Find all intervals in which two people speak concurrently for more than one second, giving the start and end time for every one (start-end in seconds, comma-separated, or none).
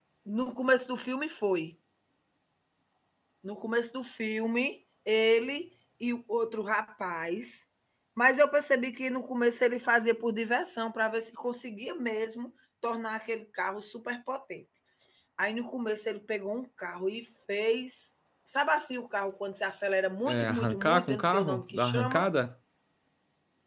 20.3-22.3